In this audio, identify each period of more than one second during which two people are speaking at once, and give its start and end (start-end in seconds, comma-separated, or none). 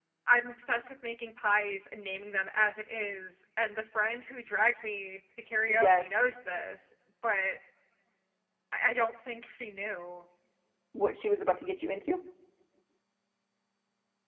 none